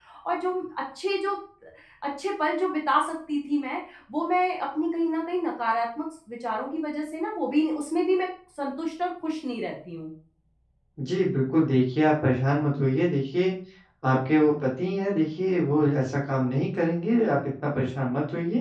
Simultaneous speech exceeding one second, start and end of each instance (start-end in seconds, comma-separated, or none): none